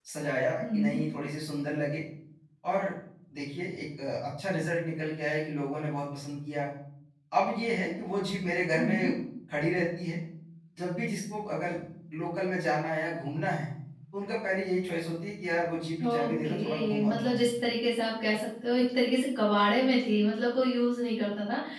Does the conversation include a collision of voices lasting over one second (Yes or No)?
Yes